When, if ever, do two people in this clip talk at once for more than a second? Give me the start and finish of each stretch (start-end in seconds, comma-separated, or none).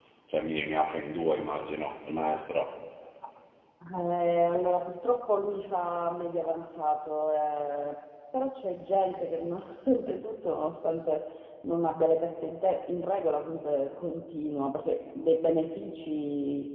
none